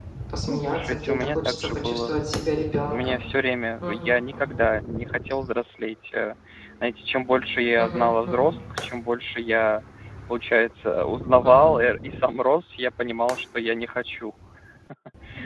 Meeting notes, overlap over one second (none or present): present